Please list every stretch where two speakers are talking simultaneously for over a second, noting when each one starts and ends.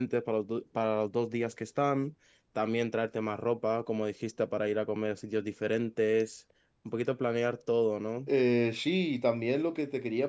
none

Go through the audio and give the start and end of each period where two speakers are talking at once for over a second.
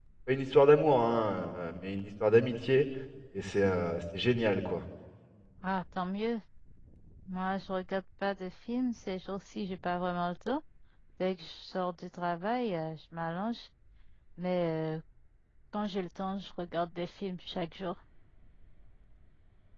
none

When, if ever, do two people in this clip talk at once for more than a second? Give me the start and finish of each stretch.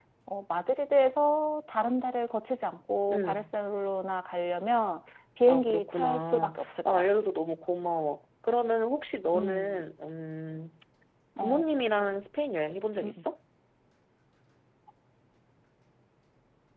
5.5-7.1

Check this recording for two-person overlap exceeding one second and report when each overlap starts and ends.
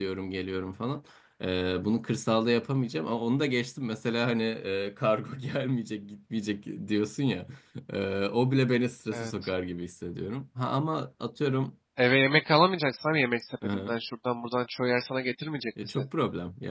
none

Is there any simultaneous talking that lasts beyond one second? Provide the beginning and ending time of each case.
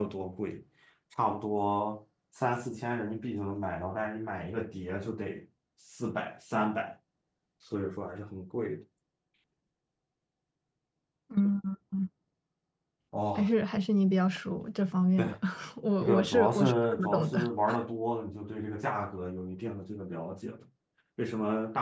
16.0-17.4

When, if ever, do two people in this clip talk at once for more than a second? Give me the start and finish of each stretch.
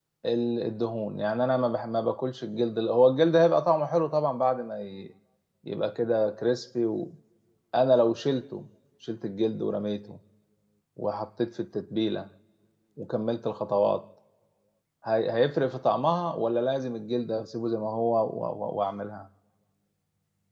none

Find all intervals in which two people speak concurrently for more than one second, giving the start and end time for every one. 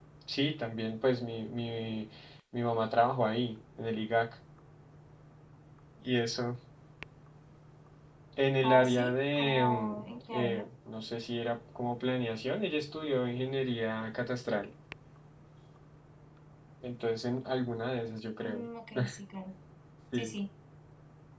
8.6-9.9

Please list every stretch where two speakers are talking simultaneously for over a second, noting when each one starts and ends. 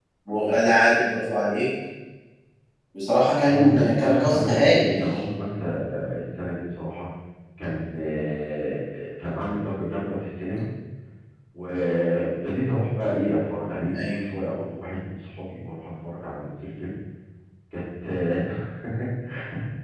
3.5-4.9

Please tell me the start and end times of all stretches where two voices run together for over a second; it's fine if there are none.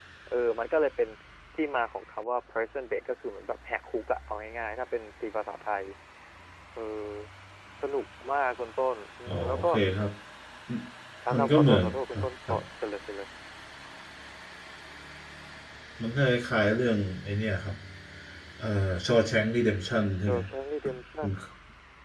11.3-12.6

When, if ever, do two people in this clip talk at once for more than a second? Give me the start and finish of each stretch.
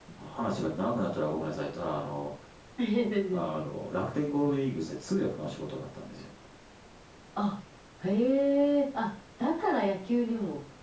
none

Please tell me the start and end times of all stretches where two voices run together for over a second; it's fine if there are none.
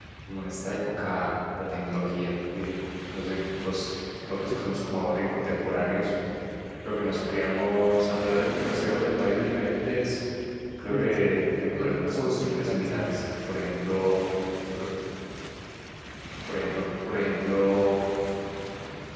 11.8-13.2

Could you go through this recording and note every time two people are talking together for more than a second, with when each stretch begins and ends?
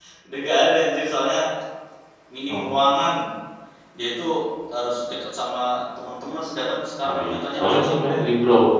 7.0-8.2

